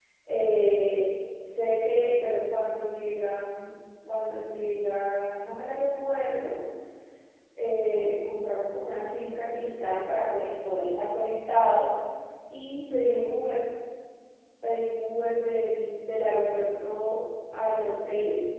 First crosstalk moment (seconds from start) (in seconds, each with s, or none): none